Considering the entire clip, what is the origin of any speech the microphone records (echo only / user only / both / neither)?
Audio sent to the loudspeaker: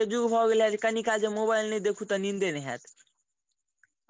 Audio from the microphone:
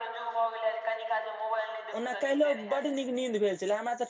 both